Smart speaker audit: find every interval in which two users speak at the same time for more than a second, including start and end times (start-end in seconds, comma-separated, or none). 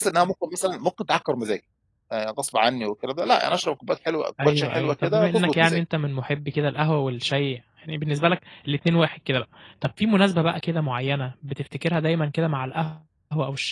4.4-5.8